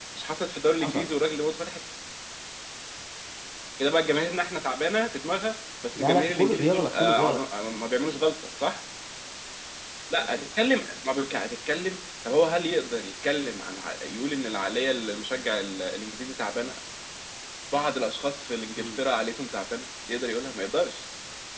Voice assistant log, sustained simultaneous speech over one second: present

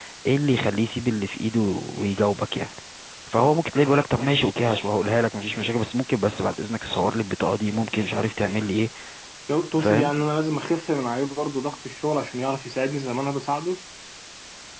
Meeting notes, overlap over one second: none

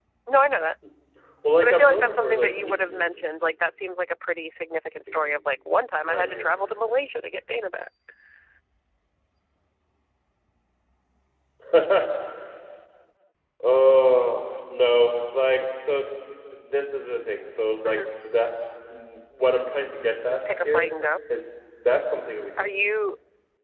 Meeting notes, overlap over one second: present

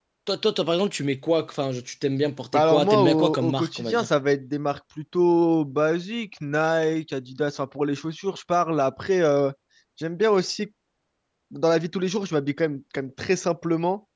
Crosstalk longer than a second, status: present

